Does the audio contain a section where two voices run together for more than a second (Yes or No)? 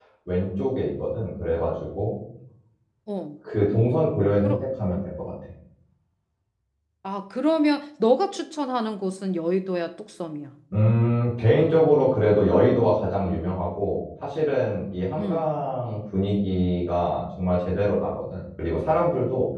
No